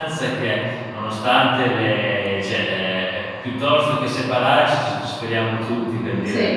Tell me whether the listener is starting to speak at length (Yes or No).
No